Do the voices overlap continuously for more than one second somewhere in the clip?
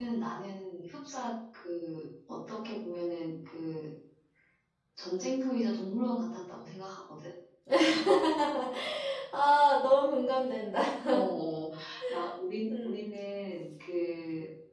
No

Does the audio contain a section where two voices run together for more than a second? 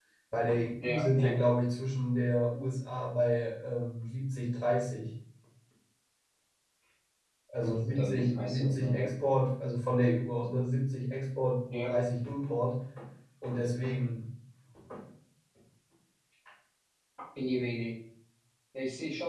Yes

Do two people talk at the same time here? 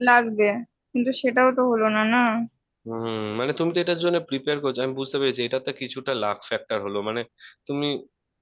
No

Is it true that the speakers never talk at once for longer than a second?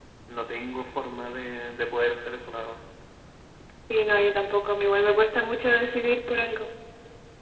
Yes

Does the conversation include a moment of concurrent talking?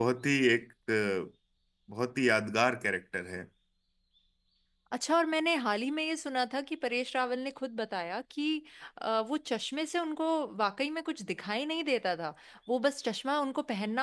No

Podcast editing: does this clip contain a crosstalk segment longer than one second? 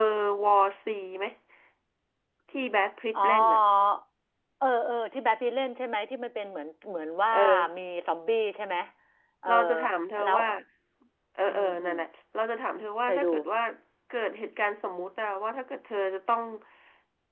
No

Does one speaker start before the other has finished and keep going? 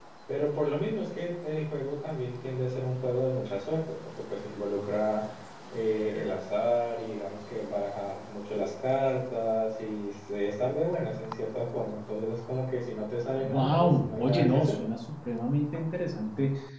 Yes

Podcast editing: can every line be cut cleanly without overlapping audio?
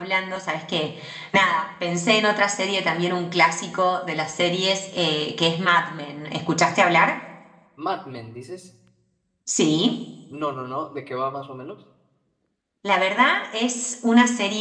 Yes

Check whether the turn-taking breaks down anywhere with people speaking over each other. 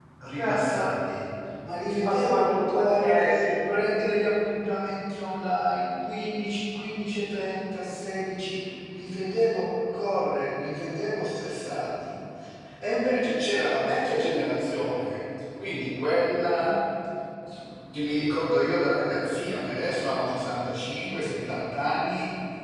Yes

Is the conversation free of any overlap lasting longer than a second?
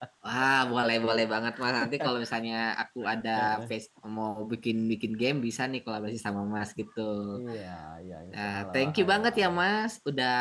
No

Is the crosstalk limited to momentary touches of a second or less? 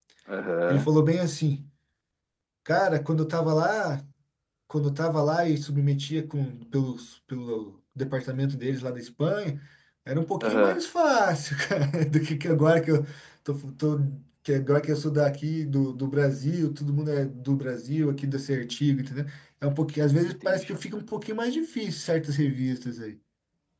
Yes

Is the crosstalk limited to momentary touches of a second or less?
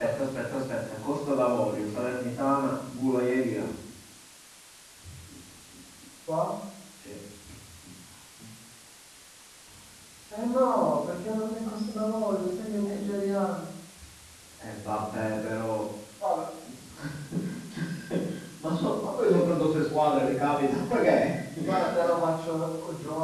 Yes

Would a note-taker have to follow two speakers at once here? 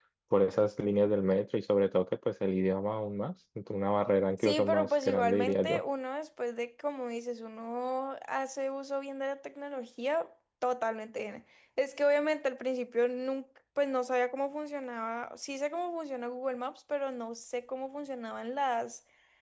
Yes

